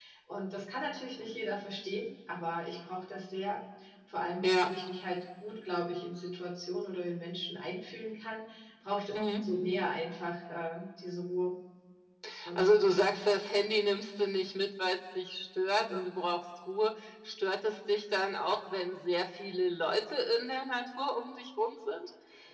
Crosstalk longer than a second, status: none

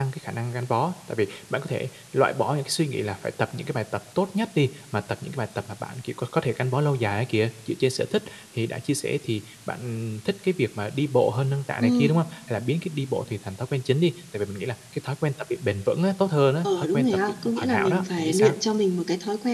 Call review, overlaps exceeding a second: present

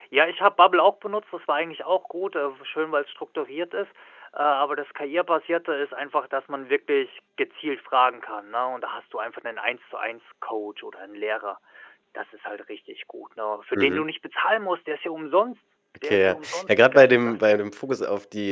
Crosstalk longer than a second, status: present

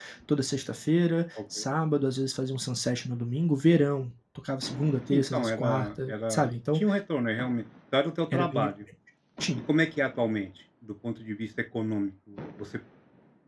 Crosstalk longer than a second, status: present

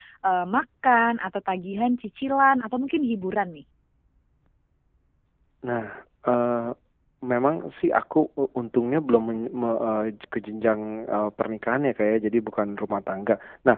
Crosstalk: none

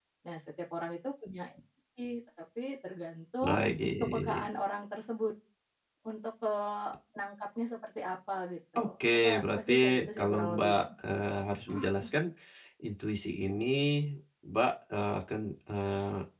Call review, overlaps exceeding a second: present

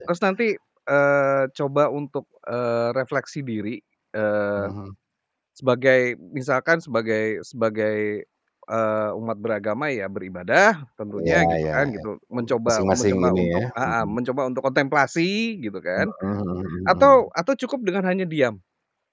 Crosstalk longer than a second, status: present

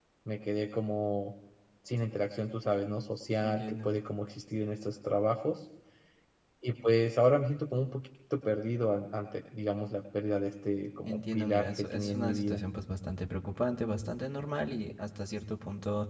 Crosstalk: present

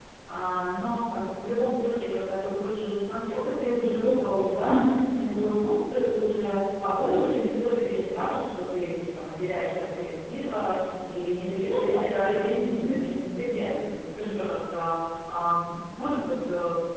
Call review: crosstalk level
present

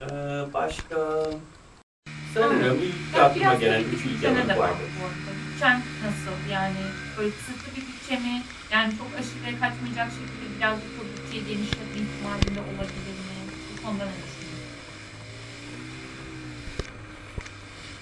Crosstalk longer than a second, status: present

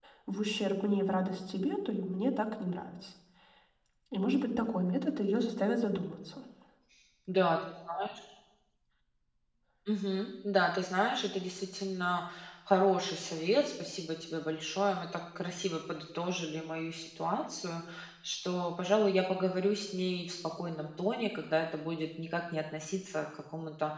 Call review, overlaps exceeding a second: none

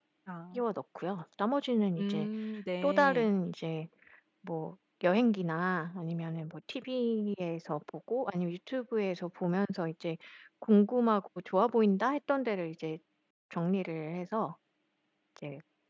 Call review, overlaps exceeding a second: none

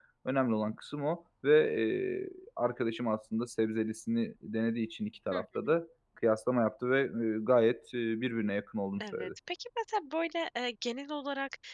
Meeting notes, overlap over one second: none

